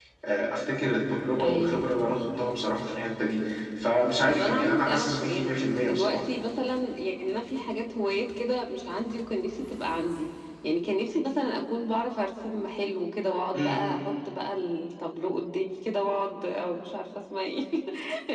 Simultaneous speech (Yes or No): Yes